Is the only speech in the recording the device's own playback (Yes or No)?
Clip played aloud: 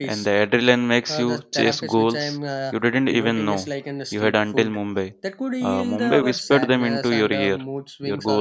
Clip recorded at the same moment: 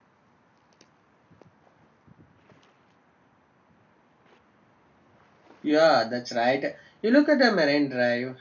No